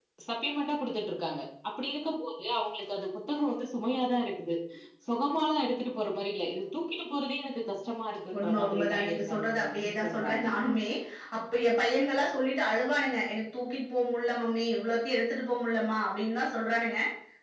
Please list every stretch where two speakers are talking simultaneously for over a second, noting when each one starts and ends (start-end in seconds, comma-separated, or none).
8.4-10.4